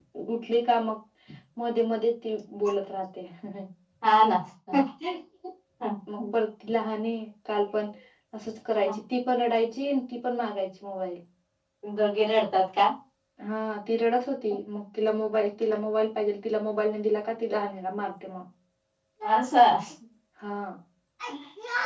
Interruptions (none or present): none